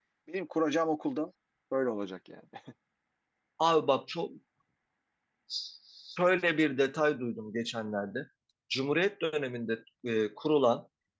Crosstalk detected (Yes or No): No